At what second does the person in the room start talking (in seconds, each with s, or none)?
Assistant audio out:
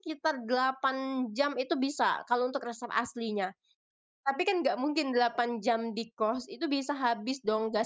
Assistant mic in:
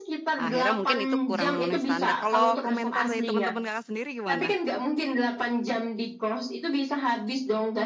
0.4 s